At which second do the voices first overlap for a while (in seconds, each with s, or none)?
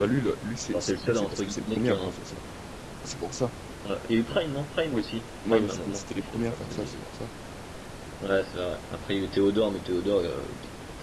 0.7 s